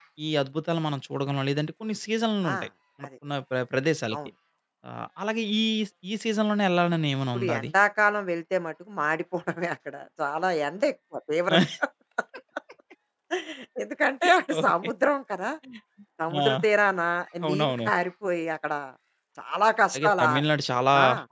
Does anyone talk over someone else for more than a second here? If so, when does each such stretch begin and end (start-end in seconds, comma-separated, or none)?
none